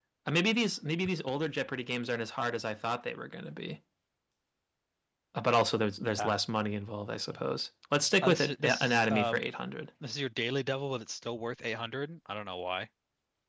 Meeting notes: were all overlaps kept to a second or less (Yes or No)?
No